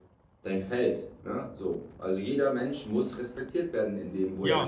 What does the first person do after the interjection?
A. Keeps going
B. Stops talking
B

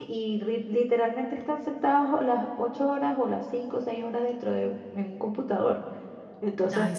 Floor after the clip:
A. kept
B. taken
A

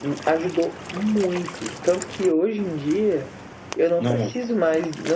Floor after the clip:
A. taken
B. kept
B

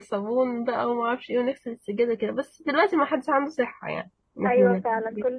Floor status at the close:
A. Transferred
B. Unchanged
A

